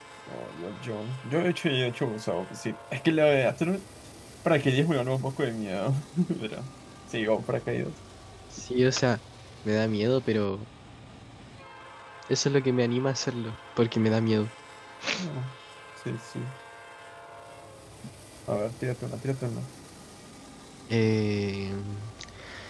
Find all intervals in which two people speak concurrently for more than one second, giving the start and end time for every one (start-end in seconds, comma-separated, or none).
none